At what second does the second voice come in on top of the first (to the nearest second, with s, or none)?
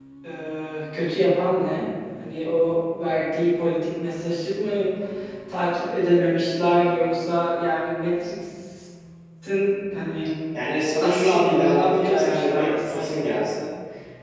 11 s